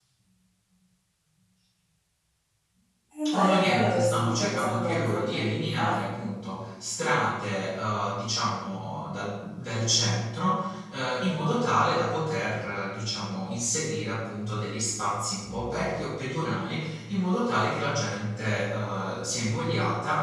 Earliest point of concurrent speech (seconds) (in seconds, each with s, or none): 3.3 s